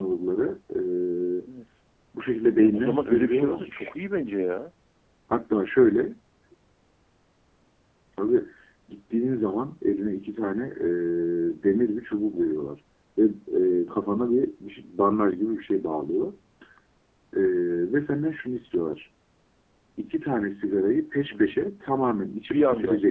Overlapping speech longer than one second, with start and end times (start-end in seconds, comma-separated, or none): 2.6-3.9